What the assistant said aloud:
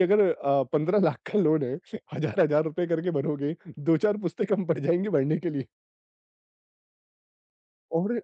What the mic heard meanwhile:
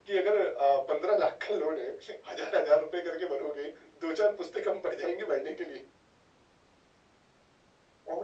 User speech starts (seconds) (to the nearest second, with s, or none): none